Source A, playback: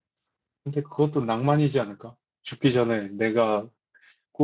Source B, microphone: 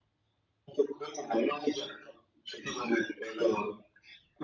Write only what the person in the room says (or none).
none